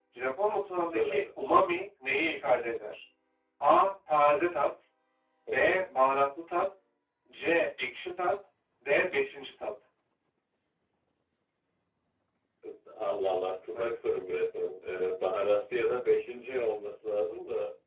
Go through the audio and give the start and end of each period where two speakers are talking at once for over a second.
none

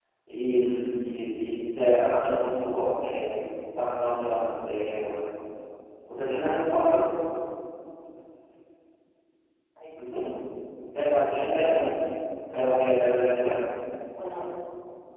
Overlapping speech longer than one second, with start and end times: none

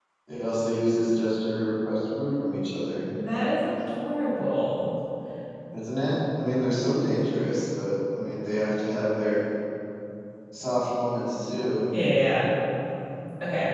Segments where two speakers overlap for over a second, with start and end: none

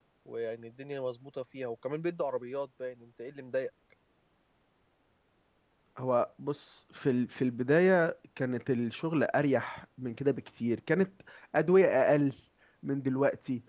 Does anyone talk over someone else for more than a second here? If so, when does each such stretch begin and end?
none

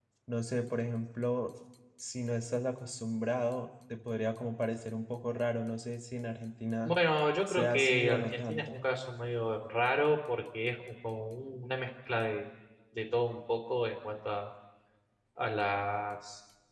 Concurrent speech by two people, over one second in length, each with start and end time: 7.5-8.8

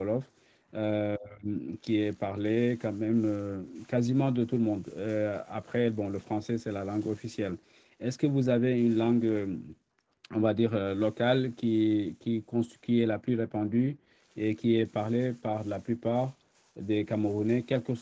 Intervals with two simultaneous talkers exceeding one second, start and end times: none

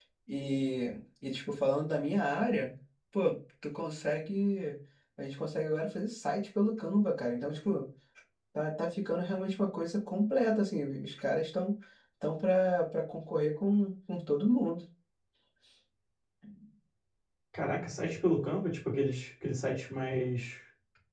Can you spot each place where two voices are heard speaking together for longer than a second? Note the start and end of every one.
none

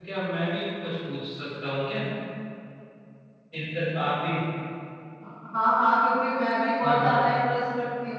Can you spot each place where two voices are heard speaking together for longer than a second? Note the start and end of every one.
none

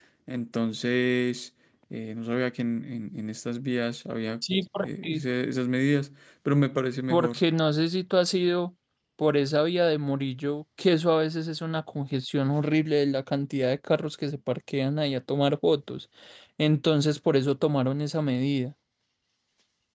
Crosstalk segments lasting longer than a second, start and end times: none

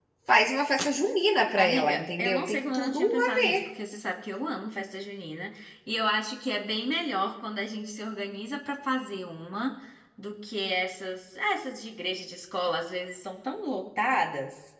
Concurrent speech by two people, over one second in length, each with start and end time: 1.6-3.6

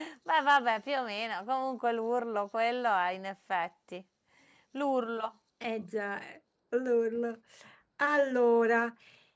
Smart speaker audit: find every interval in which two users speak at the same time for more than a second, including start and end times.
none

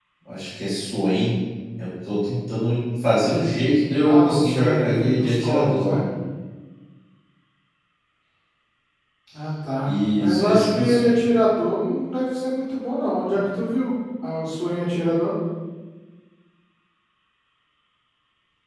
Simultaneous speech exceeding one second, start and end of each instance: 4.0-6.0, 9.8-11.2

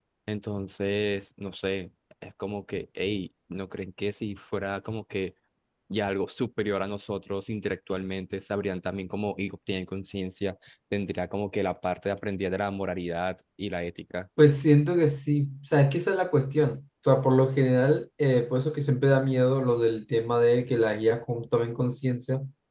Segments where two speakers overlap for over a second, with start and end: none

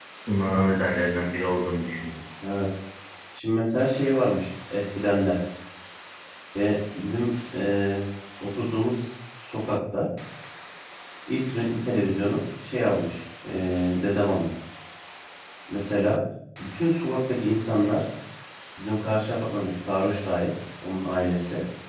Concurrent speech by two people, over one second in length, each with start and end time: none

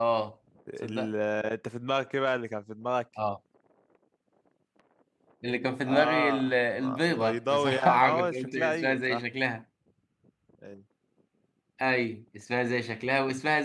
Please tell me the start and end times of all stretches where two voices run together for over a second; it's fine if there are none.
5.8-9.2

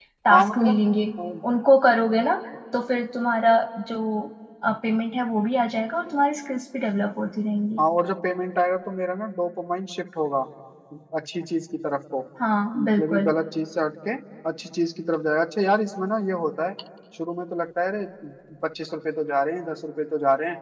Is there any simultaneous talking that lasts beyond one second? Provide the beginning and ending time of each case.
none

